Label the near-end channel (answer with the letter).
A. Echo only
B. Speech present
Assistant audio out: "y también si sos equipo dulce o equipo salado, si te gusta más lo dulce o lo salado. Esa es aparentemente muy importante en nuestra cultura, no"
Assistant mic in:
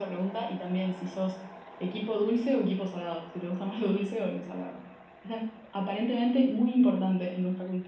A